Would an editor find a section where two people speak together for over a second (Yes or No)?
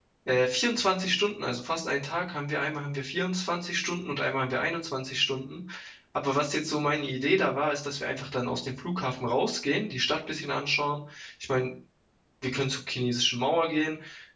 No